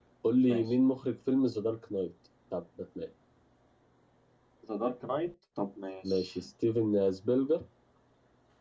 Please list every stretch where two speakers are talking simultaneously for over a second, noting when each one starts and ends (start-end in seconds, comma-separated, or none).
none